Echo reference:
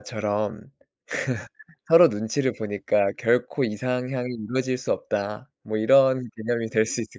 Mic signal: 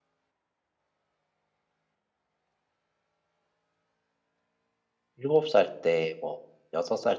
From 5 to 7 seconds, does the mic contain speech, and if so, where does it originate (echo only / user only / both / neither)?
user only